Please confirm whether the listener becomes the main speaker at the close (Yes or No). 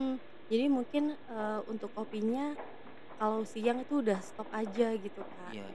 No